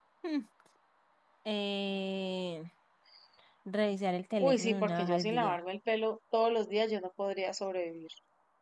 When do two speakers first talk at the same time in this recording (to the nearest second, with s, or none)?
4 s